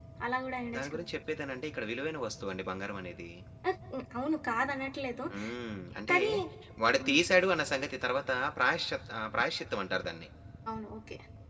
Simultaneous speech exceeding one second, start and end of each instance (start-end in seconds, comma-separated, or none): none